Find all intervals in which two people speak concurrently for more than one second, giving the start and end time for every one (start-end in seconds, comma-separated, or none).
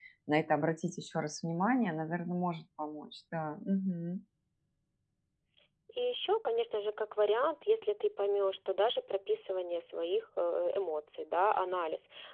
none